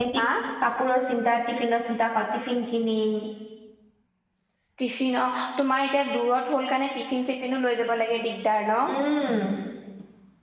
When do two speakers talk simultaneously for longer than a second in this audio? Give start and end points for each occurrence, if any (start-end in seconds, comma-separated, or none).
none